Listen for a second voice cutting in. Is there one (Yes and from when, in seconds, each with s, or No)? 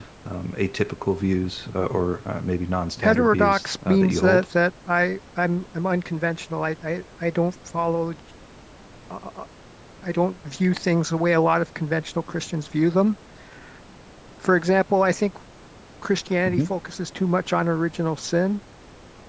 Yes, from 3.0 s